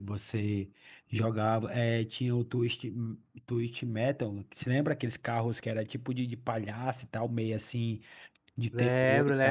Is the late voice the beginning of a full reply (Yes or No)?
Yes